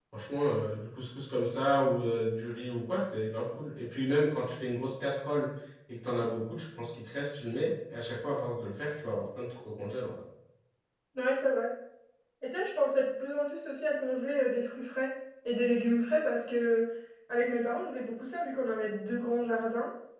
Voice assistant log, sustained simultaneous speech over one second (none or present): none